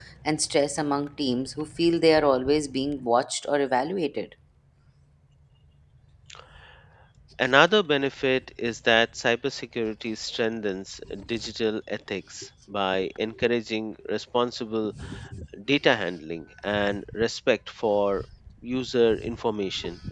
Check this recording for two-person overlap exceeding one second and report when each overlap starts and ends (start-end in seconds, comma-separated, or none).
none